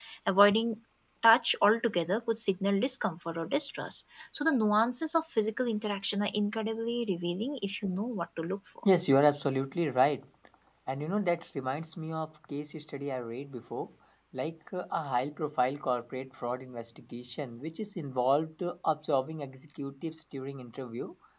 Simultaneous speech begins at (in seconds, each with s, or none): none